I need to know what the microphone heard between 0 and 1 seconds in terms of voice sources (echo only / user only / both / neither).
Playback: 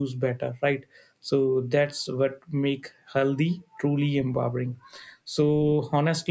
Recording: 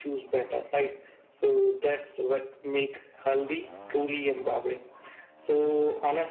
echo only